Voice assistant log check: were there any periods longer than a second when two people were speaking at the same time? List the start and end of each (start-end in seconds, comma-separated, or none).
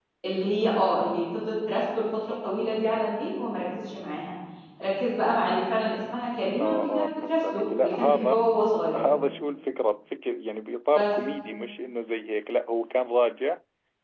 6.6-8.4